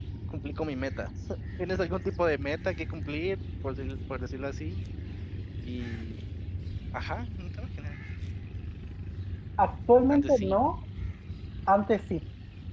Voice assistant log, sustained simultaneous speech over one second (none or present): none